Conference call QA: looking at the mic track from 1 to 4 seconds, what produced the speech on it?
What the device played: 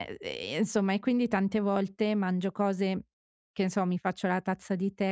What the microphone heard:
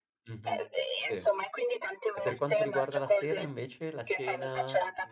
both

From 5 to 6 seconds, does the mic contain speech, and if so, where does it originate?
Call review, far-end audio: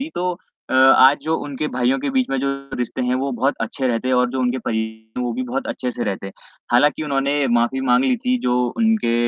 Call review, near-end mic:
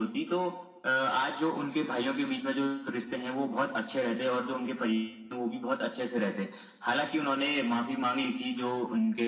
echo only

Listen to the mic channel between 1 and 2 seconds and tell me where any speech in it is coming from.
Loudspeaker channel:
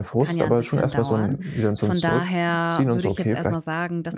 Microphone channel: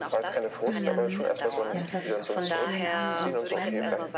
both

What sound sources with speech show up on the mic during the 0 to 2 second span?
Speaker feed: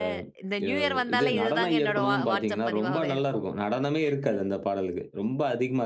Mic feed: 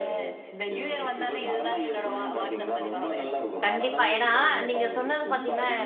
echo only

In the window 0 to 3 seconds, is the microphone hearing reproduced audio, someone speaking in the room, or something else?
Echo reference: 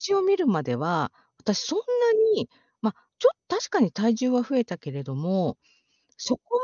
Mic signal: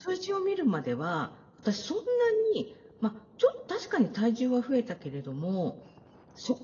echo only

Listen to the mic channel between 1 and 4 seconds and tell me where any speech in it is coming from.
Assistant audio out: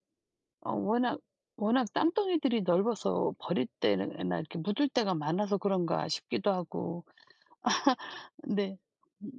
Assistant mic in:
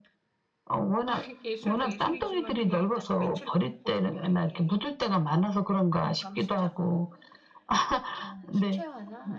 both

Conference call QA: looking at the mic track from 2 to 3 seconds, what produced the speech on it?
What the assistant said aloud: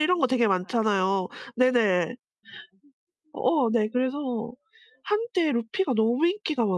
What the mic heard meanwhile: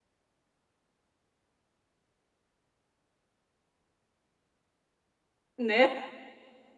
neither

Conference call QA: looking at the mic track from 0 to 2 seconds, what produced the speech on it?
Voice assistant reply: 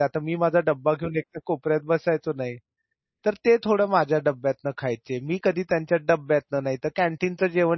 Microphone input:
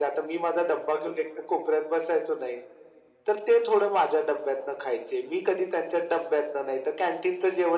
echo only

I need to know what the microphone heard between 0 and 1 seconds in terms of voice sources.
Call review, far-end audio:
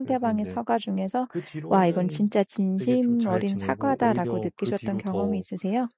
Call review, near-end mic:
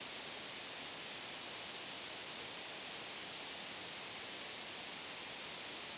neither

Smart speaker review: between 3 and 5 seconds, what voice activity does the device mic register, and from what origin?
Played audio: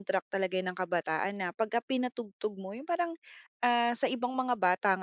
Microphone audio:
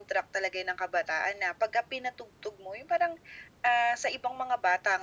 echo only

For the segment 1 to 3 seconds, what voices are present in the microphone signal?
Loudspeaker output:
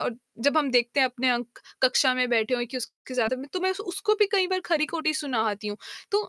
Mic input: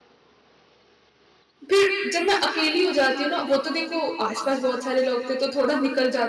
user only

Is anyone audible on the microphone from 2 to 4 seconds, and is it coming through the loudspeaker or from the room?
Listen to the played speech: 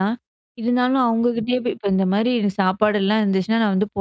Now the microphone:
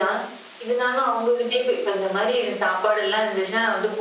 echo only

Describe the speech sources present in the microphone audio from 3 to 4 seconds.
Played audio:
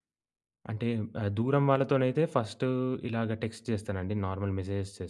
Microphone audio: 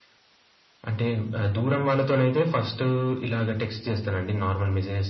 echo only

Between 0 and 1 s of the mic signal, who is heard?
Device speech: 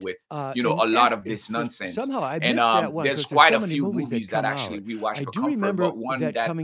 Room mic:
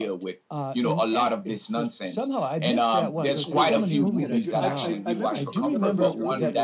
echo only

